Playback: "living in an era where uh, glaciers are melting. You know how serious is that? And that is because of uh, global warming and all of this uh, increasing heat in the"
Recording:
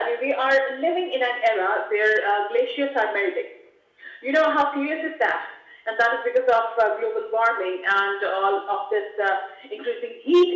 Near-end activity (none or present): none